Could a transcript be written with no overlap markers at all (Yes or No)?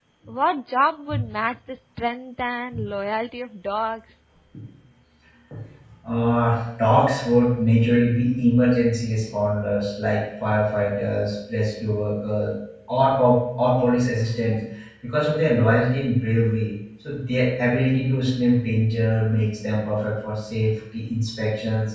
Yes